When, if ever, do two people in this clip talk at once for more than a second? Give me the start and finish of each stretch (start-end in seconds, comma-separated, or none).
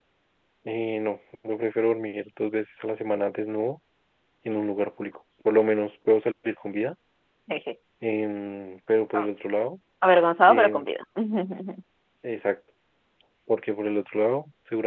none